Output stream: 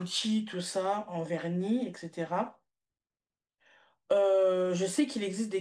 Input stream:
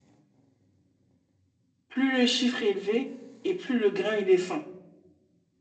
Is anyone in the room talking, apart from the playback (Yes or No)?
Yes